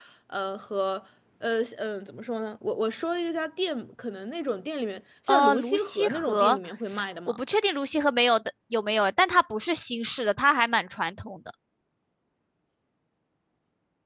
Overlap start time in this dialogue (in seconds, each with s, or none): 5.3 s